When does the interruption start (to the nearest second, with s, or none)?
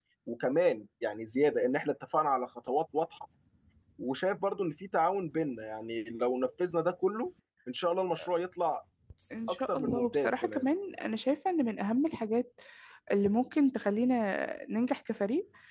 9 s